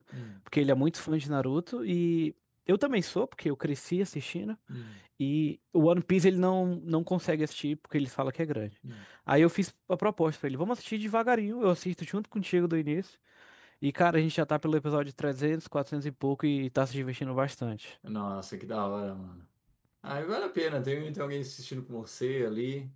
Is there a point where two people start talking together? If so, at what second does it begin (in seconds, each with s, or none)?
none